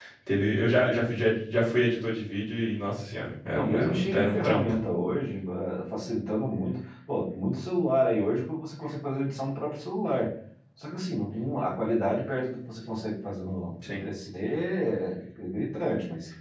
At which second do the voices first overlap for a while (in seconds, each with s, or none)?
3.5 s